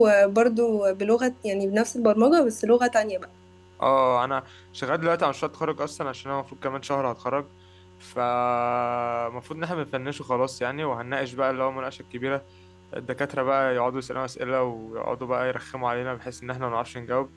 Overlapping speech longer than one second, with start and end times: none

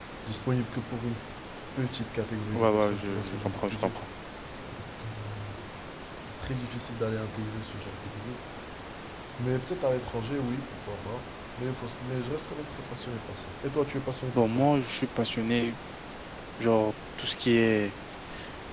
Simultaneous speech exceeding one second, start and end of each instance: 2.5-4.0

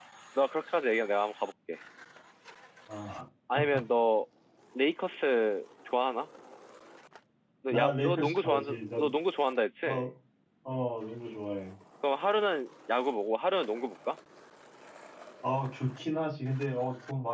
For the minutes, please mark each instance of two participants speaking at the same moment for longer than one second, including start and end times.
7.7-9.1

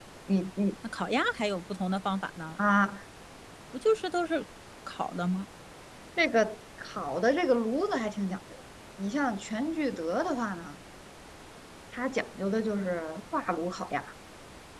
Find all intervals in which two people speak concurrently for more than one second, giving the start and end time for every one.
none

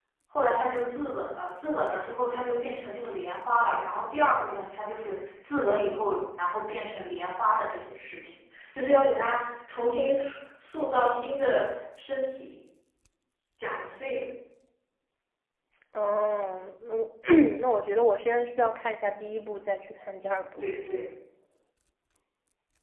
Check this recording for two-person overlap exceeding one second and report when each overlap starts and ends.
none

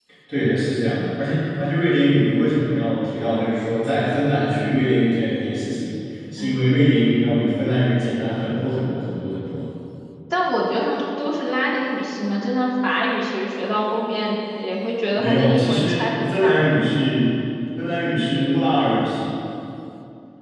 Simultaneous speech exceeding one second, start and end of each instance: 15.2-16.6

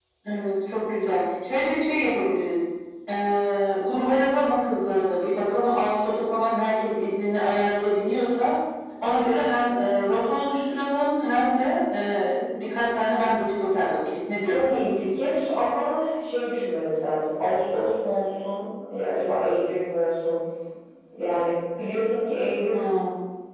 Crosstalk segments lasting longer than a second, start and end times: none

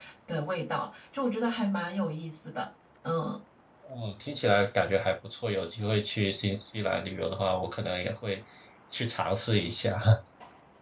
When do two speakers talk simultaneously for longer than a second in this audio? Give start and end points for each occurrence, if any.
none

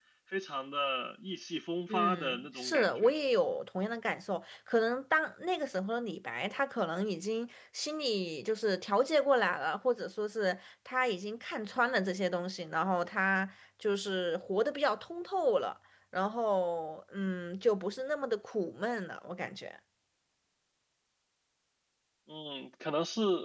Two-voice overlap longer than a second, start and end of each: 1.9-3.1

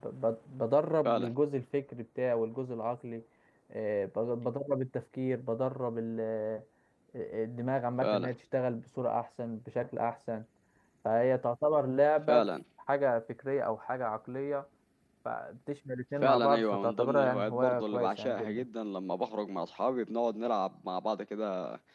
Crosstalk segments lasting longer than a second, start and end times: 16.2-18.6

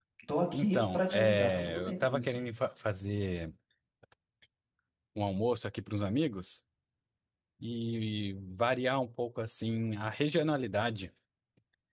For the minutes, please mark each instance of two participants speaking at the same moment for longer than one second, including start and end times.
0.5-2.4

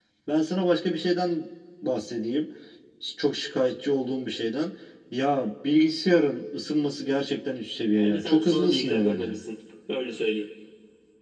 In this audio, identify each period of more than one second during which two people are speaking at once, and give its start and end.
7.9-9.3

